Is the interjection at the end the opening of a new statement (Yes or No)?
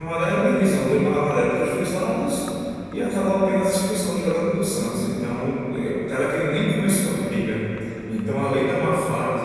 No